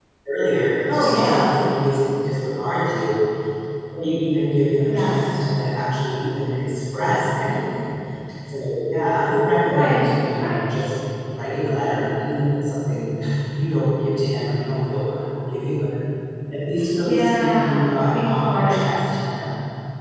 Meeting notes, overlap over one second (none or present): present